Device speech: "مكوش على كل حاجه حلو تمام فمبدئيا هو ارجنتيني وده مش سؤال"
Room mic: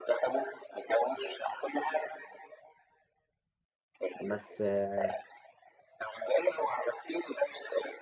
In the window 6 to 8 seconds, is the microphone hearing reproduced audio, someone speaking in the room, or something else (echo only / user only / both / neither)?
echo only